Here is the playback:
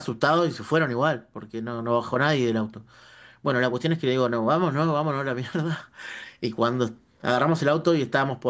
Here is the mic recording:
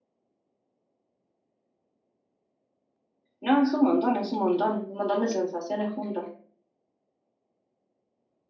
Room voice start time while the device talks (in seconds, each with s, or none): 3.4 s